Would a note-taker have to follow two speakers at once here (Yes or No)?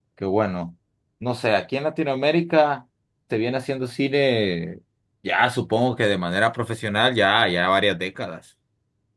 No